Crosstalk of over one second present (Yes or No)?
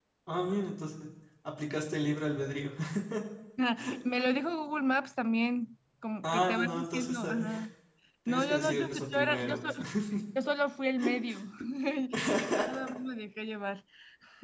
Yes